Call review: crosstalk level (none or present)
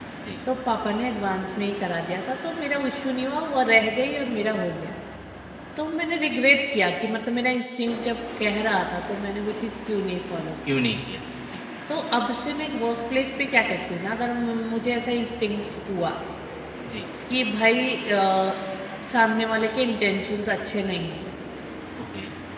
none